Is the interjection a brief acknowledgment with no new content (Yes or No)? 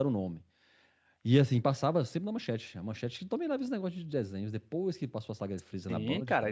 No